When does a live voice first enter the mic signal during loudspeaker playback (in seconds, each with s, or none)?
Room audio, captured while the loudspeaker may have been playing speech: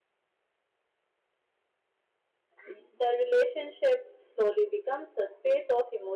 2.6 s